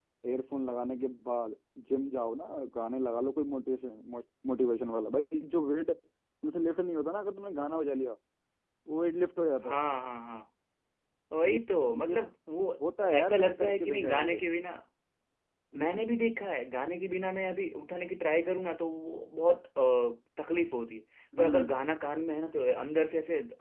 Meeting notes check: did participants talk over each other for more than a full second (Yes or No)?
Yes